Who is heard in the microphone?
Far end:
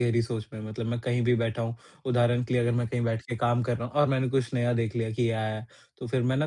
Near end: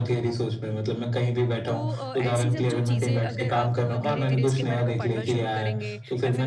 both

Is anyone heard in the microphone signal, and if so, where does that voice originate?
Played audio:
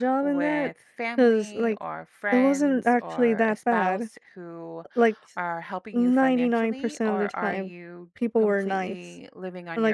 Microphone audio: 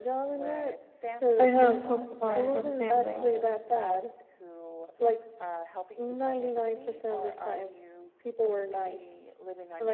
both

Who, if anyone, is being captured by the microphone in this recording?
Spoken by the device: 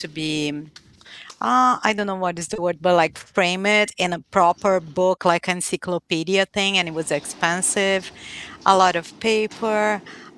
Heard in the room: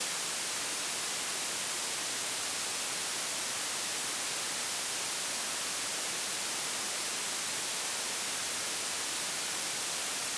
neither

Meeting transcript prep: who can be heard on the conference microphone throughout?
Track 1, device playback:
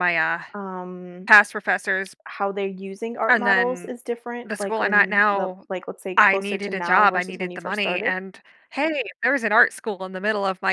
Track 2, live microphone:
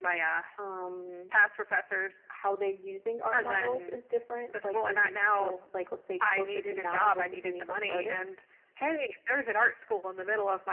echo only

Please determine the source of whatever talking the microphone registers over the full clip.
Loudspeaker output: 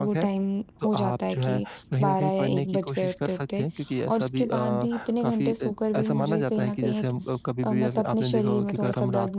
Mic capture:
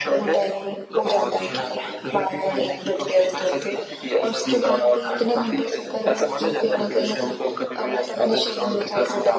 echo only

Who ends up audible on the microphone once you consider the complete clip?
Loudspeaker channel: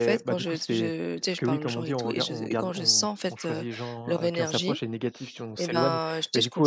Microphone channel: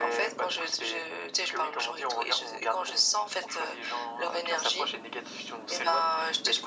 echo only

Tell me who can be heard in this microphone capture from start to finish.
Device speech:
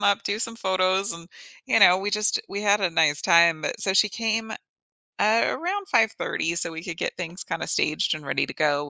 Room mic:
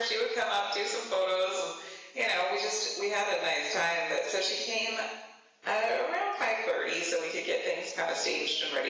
echo only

